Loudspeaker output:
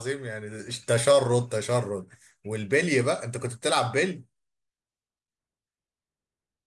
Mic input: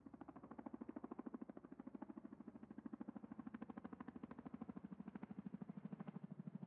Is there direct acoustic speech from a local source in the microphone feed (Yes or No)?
No